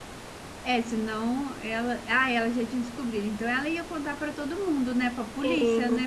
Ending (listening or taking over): taking over